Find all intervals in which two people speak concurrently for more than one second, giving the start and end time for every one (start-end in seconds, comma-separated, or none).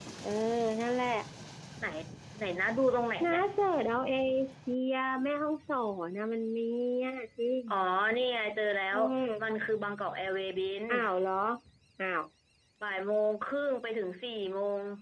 none